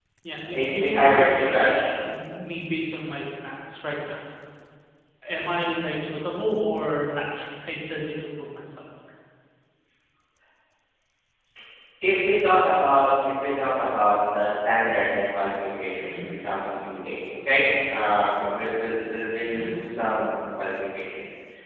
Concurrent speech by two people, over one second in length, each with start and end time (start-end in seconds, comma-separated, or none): 0.5-1.9